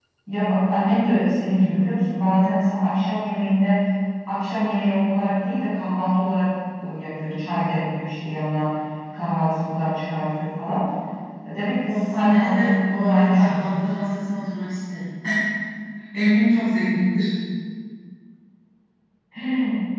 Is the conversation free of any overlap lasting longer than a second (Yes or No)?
No